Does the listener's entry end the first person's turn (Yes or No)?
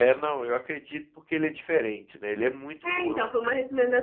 Yes